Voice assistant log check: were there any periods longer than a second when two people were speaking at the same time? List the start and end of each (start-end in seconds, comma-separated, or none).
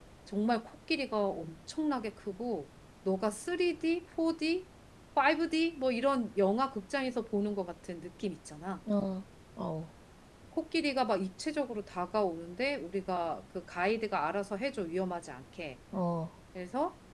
none